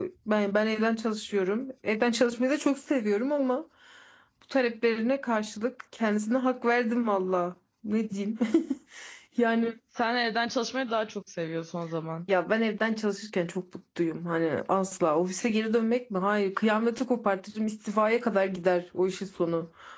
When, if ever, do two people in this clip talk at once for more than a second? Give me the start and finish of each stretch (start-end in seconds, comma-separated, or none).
none